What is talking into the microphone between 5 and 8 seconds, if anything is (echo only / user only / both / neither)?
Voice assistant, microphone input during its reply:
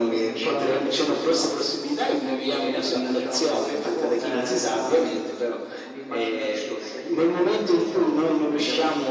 echo only